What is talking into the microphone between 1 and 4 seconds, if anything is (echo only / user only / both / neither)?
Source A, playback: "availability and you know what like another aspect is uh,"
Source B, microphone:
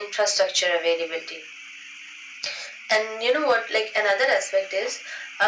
echo only